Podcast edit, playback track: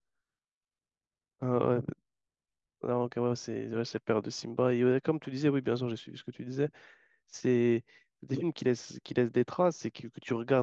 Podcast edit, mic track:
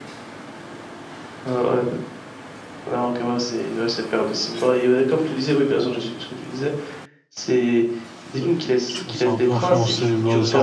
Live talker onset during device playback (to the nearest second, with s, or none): 9 s